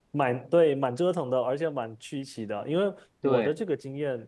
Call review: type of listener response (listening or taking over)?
listening